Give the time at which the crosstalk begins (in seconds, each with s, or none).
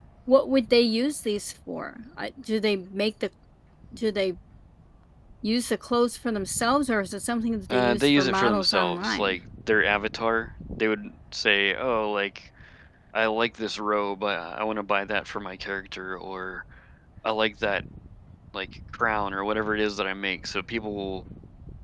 7.7 s